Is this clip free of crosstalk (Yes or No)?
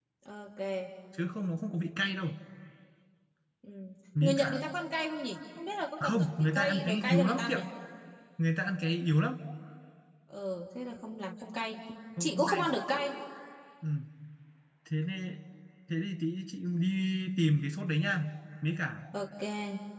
No